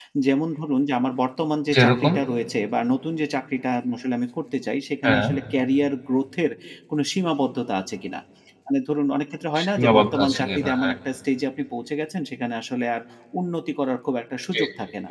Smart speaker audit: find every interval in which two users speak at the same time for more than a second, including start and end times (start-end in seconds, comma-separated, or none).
9.6-10.9